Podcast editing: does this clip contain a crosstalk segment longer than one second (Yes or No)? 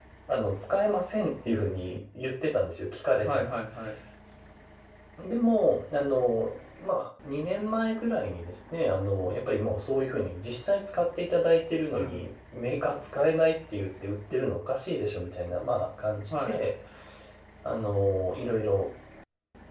No